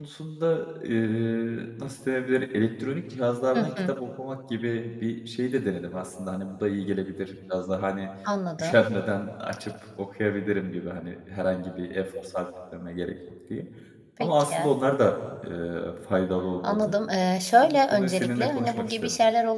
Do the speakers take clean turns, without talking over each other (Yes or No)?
No